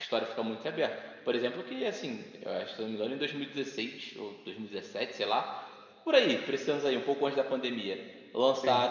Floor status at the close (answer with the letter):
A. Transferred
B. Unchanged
B